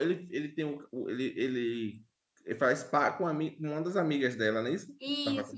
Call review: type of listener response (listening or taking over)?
taking over